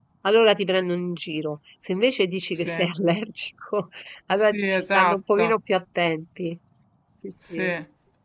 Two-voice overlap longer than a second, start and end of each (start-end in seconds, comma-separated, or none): 4.3-5.5